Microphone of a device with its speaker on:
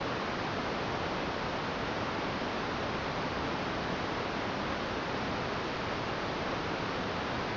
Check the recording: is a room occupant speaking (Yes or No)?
No